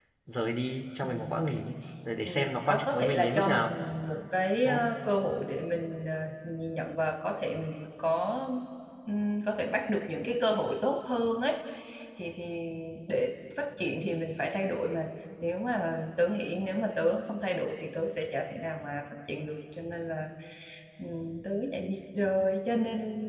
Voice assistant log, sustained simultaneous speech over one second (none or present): present